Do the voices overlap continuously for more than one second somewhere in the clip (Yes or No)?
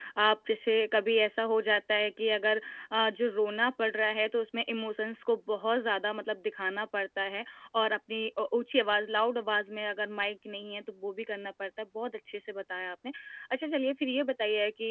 No